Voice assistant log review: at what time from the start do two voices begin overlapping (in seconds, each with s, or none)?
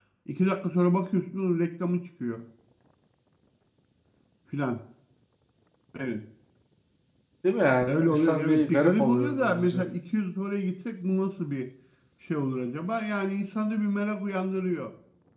7.8 s